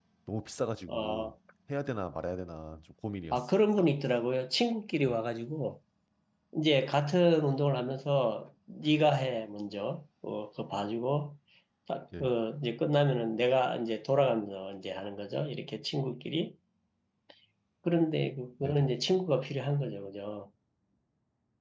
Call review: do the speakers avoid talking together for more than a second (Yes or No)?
Yes